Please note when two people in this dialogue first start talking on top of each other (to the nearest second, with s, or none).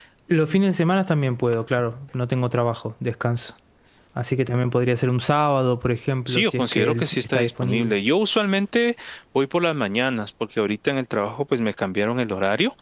6 s